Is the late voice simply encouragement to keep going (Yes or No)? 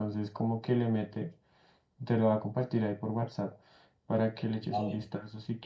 No